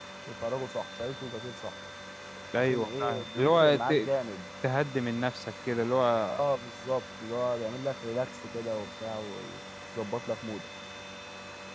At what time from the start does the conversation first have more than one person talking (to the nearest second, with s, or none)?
3 s